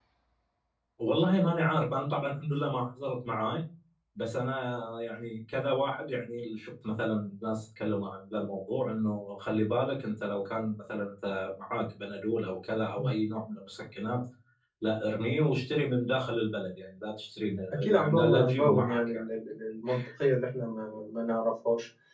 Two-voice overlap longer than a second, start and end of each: 17.8-19.2

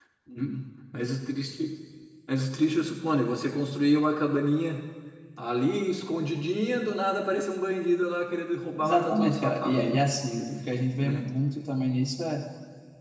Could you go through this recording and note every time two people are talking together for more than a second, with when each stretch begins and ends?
8.8-10.0

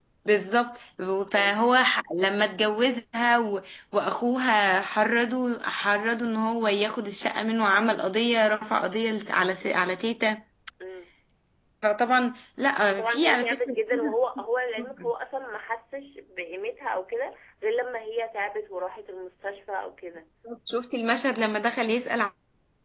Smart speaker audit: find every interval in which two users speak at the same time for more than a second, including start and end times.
12.9-14.2

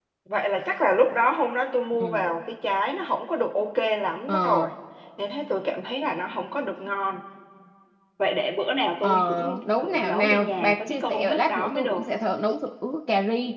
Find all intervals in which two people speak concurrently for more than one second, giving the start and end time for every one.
9.0-12.0

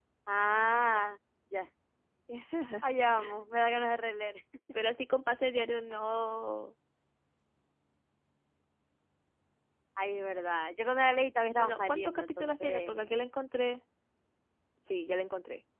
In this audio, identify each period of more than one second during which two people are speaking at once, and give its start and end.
11.6-13.0

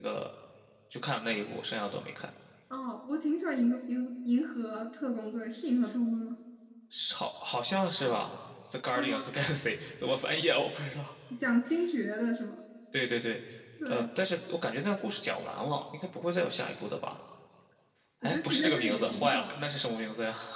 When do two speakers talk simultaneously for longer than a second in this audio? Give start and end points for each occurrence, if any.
18.2-19.5

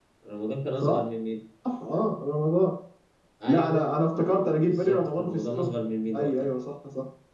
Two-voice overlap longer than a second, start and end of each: 3.5-5.7

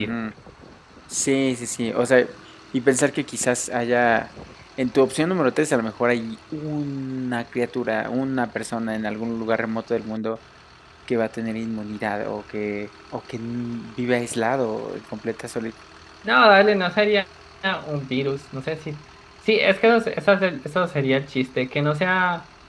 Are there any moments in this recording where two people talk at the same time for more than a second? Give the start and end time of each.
none

